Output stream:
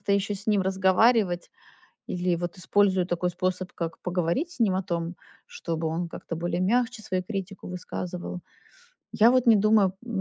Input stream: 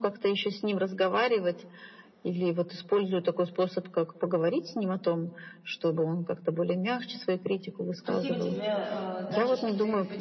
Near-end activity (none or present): present